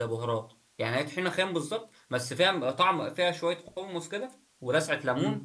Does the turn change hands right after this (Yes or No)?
Yes